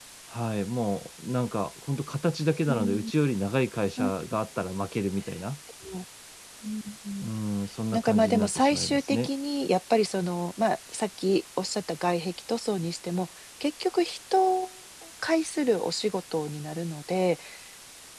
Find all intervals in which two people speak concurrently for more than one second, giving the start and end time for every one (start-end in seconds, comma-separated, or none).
7.9-9.3